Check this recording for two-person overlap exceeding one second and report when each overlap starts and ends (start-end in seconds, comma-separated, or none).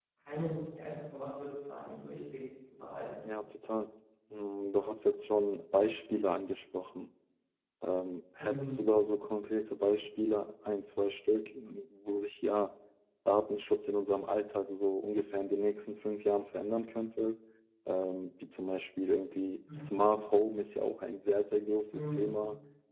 none